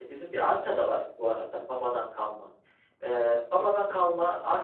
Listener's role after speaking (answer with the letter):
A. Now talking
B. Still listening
B